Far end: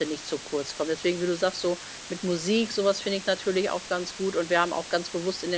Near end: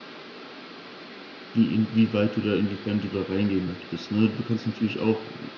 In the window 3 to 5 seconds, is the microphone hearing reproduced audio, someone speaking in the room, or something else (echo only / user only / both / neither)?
user only